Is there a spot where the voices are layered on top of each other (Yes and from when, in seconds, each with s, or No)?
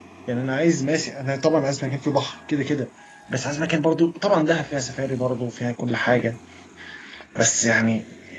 No